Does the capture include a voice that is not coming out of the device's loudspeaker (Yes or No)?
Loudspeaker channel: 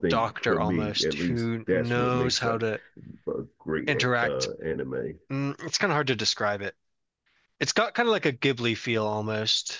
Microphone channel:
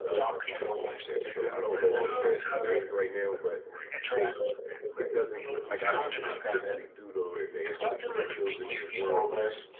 Yes